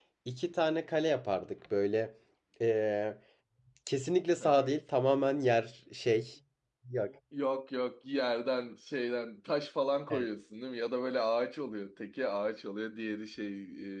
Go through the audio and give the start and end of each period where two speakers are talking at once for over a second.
none

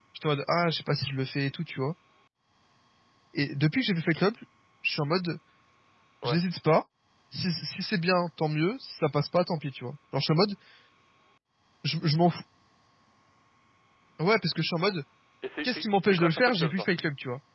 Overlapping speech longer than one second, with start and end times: 15.6-16.9

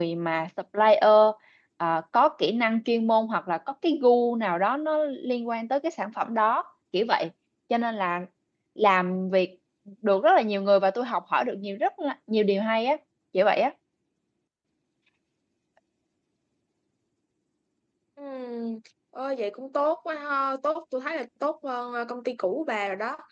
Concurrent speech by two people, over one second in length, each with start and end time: none

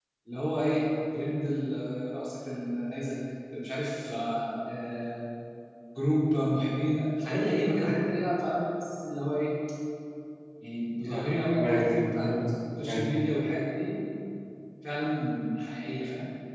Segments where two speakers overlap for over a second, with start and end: 11.0-12.3

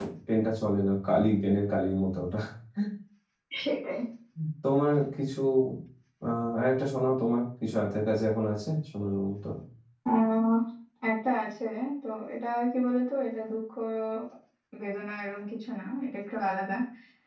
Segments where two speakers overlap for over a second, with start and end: none

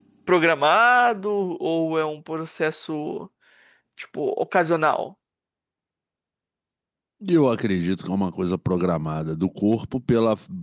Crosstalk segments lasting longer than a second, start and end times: none

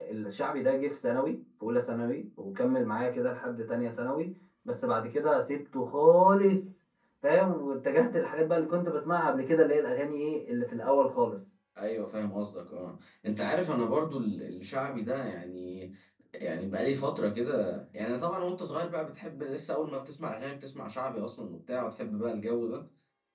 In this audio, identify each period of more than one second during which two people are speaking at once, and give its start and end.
none

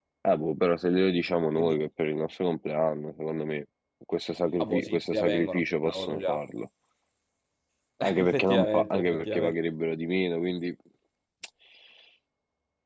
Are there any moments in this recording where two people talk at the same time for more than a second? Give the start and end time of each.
4.6-6.4, 8.0-9.6

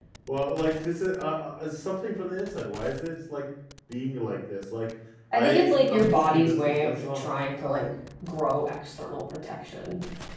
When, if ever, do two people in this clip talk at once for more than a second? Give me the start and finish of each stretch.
5.3-7.2

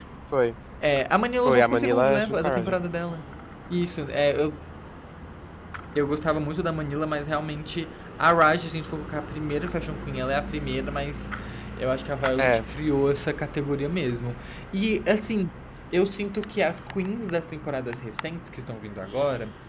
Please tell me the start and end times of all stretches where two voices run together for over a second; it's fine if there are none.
1.4-2.8

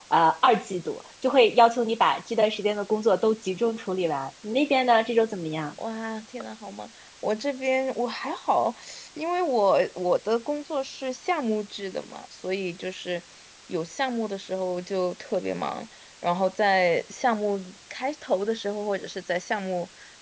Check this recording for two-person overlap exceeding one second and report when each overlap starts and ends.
none

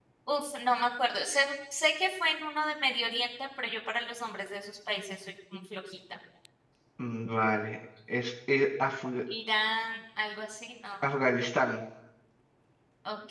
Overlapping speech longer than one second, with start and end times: none

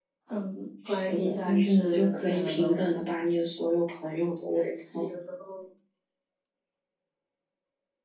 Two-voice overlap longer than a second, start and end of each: 0.9-3.0

